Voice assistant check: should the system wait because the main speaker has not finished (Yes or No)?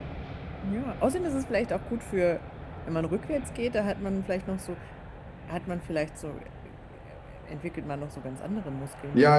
No